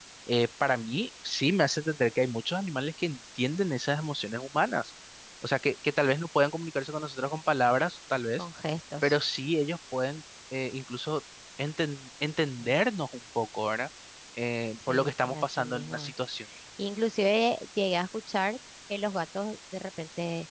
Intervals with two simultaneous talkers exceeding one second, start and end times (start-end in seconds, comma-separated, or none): 14.9-16.1